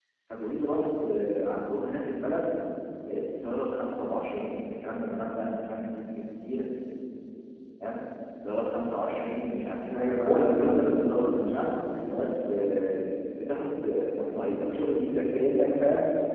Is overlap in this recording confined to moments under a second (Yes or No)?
No